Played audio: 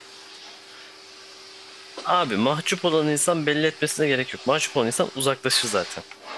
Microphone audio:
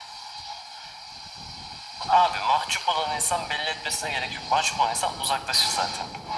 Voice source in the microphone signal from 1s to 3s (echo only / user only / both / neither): echo only